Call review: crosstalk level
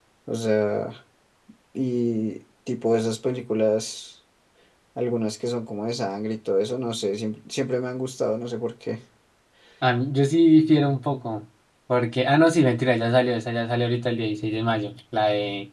none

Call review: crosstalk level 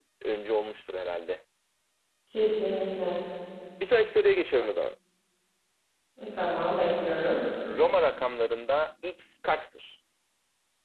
none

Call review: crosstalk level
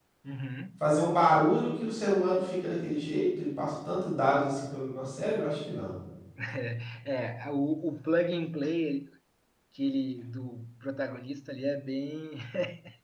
none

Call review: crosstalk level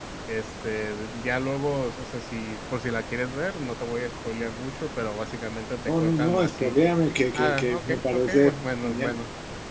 present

